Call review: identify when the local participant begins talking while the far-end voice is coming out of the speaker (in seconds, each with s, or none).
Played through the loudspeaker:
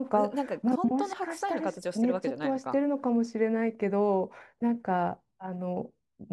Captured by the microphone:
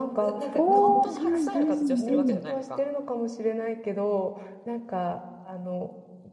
0.5 s